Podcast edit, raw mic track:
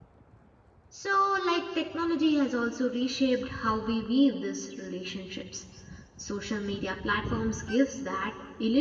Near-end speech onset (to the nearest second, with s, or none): 1 s